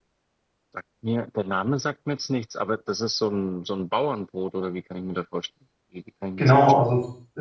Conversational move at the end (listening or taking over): taking over